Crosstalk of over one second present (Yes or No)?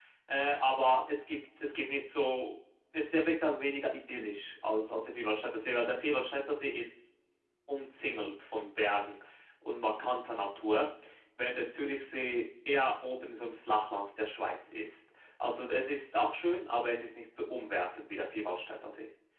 No